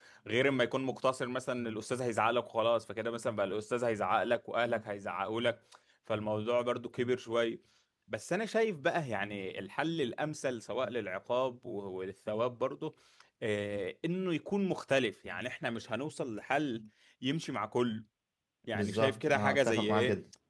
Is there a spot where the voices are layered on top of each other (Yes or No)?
Yes